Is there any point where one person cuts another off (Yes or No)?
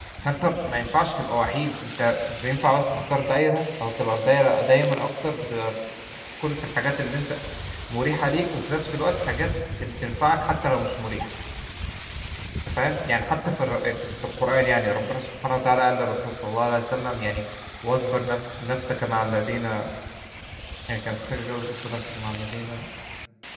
No